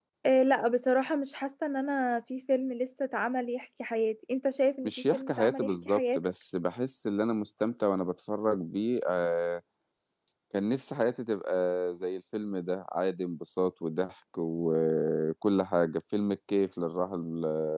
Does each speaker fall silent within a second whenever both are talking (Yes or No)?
No